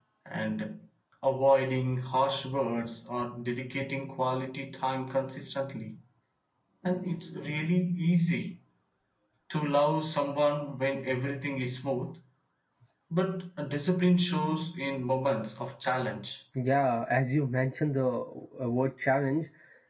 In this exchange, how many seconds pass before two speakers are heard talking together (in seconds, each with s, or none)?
none